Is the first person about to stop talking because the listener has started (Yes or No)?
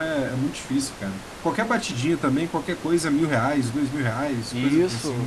Yes